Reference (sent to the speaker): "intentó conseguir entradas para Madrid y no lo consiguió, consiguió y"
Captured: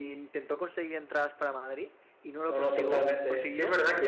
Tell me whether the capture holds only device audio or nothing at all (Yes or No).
No